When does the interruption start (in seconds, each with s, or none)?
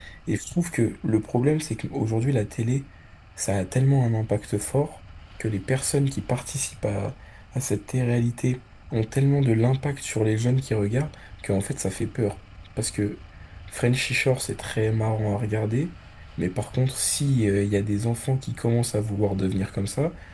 none